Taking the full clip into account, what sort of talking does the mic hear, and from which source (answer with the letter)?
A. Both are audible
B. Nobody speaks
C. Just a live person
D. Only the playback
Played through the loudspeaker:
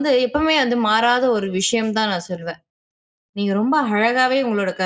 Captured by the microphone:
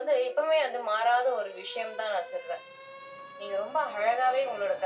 D